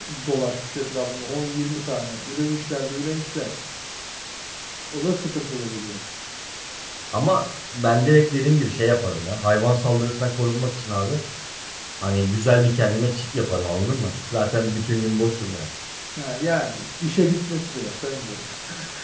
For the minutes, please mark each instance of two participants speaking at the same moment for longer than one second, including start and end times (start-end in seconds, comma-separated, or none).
none